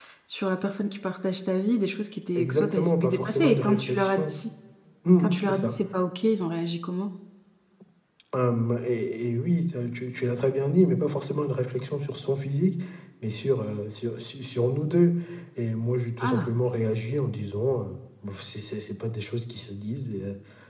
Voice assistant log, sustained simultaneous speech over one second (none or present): present